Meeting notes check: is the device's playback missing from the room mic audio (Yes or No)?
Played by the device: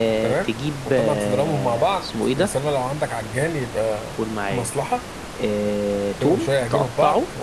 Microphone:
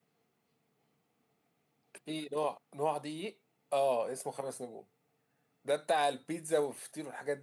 Yes